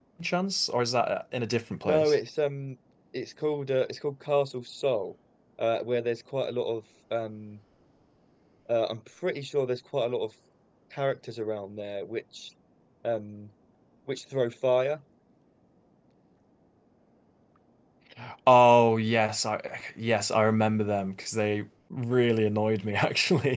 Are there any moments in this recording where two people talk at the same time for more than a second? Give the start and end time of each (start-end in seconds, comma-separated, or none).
none